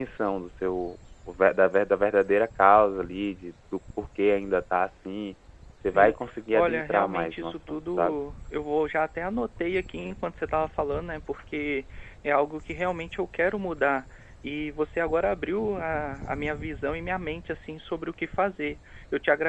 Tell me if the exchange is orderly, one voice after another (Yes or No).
No